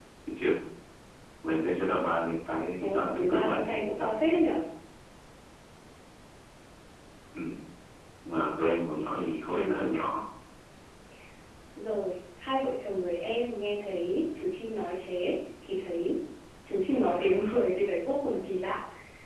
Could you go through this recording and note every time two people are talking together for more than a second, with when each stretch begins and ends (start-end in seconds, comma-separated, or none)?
2.8-4.1